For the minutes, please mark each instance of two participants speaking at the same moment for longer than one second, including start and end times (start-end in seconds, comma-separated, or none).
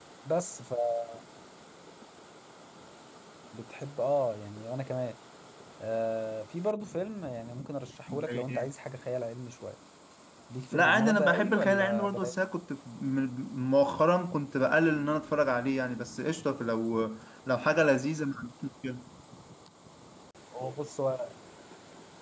10.7-12.3